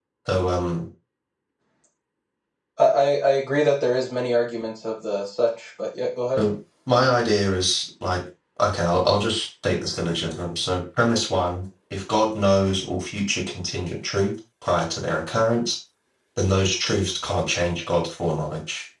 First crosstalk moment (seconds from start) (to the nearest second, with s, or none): none